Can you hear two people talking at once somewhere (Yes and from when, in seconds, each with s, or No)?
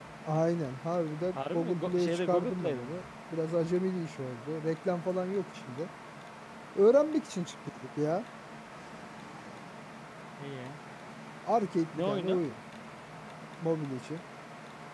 Yes, from 1.3 s